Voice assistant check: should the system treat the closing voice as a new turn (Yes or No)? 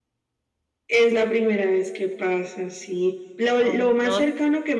No